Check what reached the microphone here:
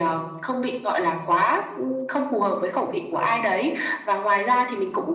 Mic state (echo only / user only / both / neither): echo only